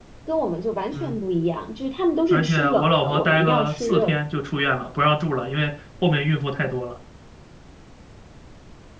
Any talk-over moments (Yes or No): Yes